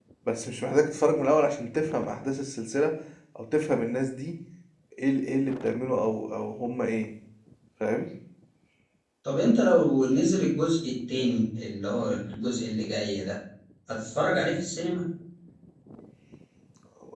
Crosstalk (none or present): none